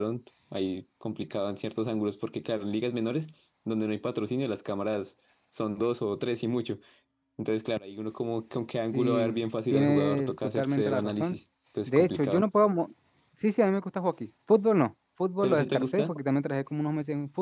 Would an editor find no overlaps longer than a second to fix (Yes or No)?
No